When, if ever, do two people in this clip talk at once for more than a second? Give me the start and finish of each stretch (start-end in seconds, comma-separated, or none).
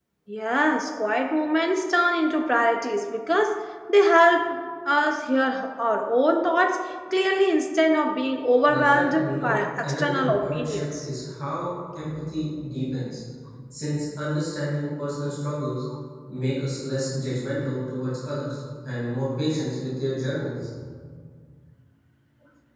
8.7-11.1